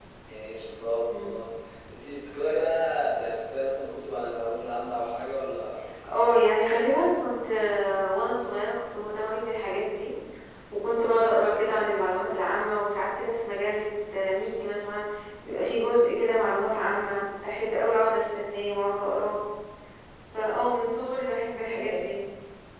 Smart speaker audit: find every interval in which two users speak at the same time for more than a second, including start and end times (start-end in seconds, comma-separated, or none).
none